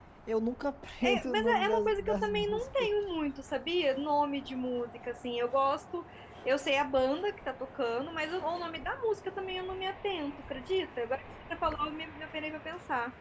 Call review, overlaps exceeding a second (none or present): present